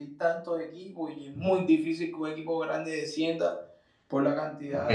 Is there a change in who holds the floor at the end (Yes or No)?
Yes